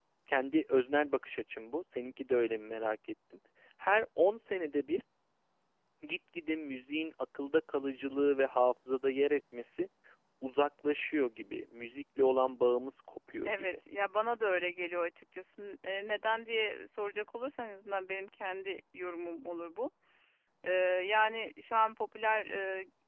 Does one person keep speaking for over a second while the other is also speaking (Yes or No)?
No